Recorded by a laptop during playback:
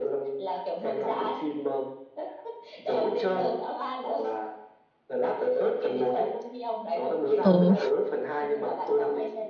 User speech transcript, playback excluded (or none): ừ,